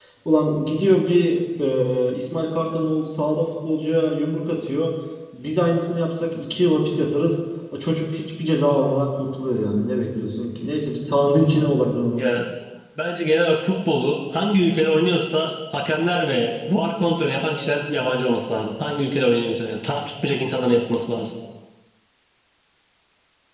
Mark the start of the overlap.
none

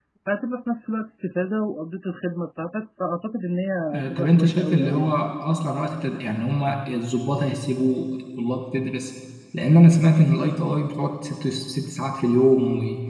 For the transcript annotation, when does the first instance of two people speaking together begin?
3.9 s

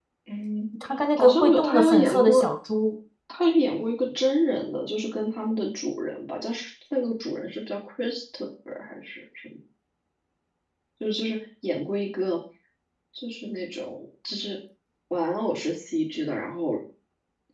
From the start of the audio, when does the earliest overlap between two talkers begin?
1.2 s

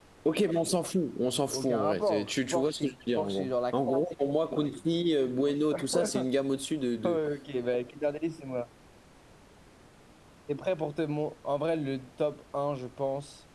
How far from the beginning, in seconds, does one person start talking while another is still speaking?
1.2 s

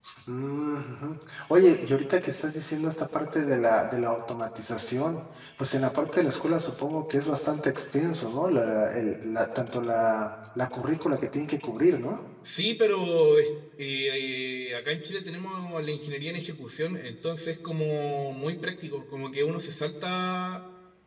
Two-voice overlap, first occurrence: none

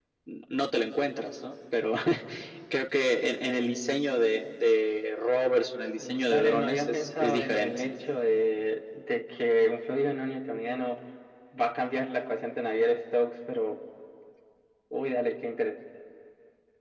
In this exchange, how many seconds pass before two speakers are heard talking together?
6.0 s

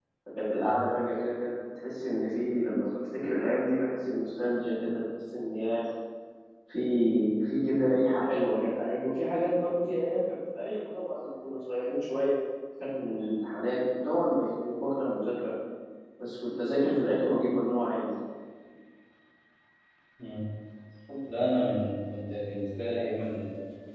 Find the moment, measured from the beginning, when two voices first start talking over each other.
none

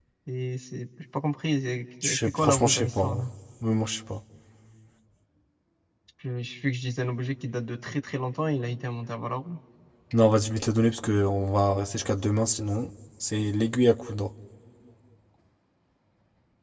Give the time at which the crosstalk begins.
2.0 s

